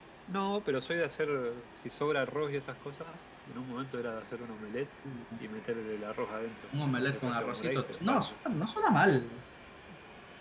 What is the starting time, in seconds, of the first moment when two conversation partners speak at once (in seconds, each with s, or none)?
7.0 s